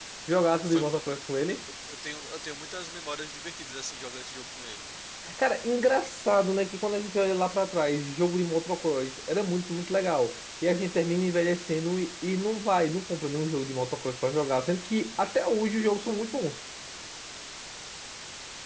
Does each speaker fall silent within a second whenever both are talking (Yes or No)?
Yes